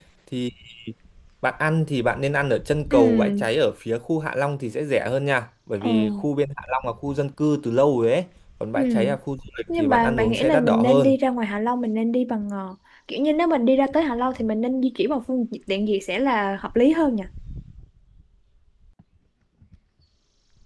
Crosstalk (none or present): present